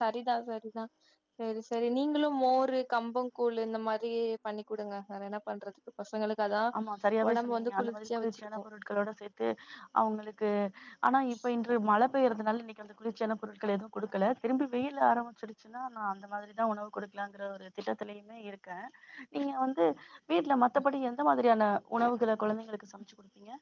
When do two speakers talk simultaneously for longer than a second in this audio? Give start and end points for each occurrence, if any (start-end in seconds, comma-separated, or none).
7.3-8.6